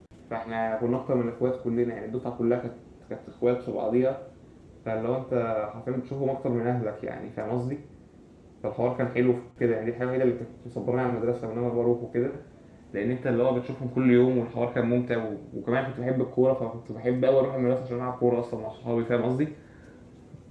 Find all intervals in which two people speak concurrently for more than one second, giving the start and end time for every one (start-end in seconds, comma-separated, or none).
none